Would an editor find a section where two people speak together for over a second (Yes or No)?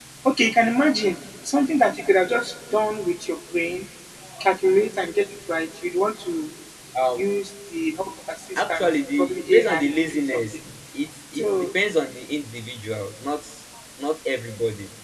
Yes